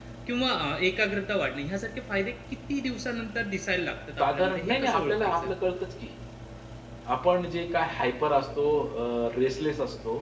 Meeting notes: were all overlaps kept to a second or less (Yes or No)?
No